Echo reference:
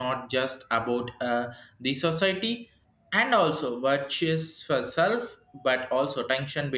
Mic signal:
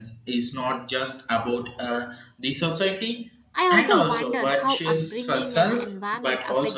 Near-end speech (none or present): present